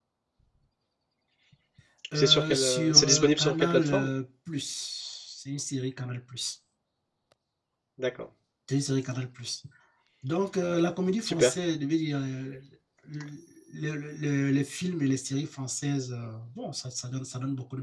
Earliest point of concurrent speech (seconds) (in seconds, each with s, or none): 2.1 s